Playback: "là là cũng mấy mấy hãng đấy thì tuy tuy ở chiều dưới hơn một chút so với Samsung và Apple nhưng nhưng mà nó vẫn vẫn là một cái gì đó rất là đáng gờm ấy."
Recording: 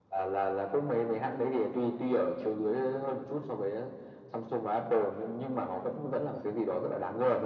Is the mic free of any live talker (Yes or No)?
Yes